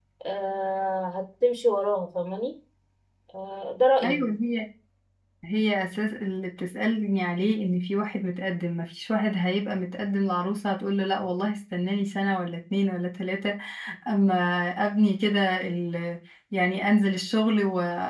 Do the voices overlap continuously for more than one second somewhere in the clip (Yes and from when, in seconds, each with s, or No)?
No